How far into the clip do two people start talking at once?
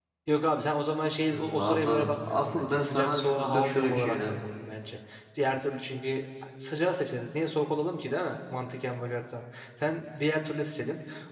1.2 s

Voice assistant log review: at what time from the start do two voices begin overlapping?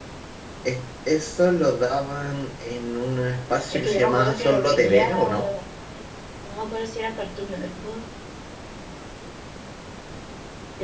3.7 s

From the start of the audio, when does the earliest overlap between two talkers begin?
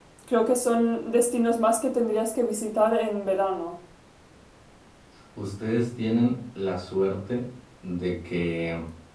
none

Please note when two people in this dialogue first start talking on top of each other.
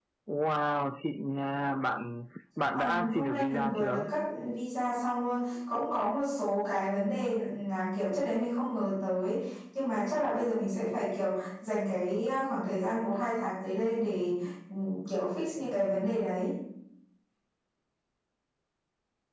2.7 s

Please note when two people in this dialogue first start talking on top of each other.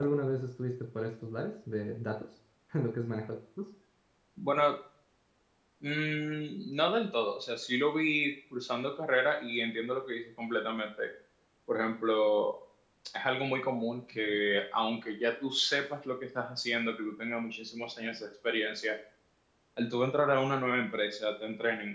none

